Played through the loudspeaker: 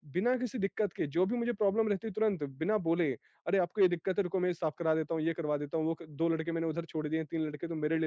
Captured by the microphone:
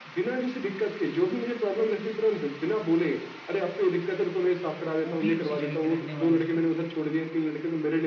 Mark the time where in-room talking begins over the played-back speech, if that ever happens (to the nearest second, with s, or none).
5 s